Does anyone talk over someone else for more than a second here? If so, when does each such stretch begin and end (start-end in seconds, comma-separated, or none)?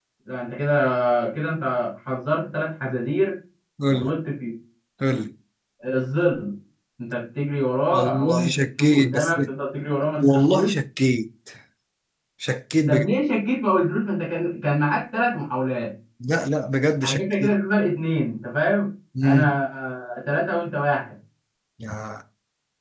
7.9-9.4